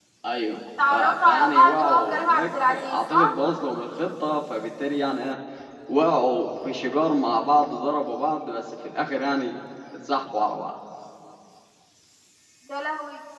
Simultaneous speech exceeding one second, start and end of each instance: 0.9-3.3

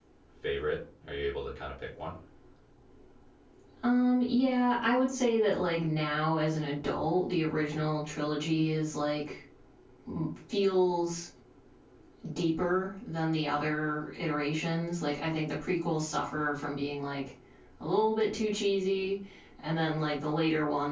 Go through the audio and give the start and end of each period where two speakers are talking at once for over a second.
none

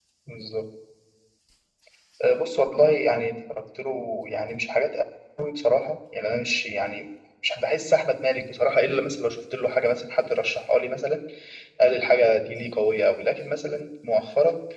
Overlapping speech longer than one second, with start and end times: none

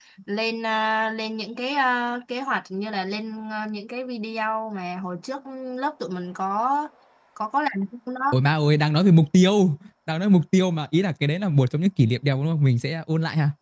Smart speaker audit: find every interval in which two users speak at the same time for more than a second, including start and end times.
none

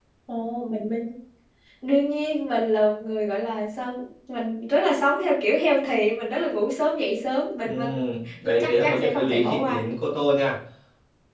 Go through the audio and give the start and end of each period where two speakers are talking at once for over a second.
8.6-9.8

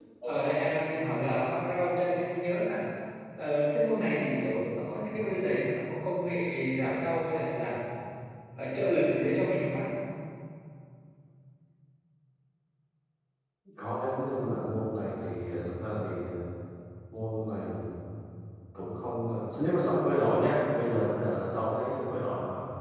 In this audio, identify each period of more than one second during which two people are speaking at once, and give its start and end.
none

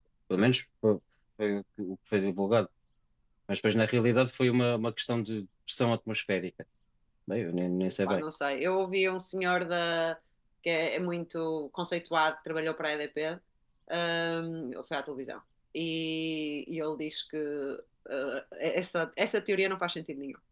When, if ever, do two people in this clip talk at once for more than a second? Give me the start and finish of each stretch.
none

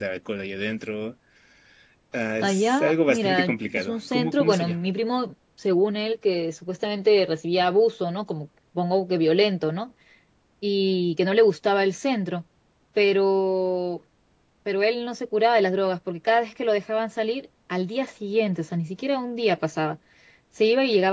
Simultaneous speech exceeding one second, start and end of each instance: 2.4-4.8

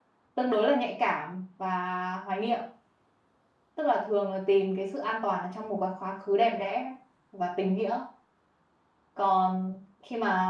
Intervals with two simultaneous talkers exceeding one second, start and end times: none

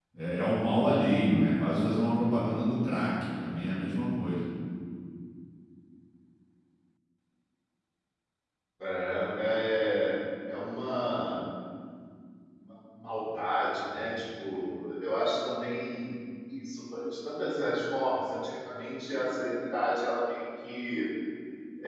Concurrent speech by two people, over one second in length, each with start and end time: none

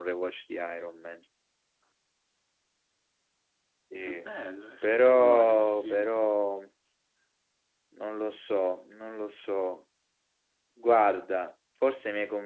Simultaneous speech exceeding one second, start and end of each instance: 4.8-6.2

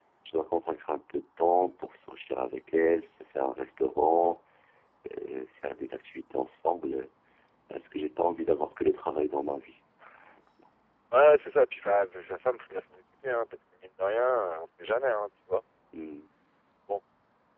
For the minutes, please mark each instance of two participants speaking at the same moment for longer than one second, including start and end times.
none

